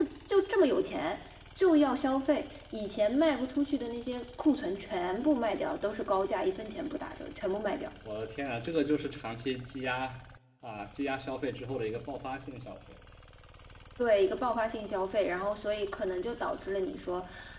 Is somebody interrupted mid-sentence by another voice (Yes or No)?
No